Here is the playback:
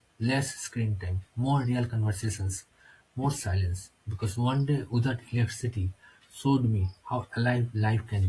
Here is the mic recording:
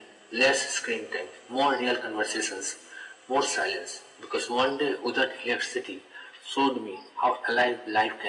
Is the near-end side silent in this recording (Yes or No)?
Yes